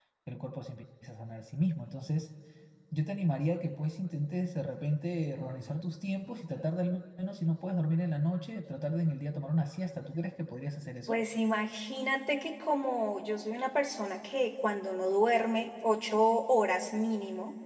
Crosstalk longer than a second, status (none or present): none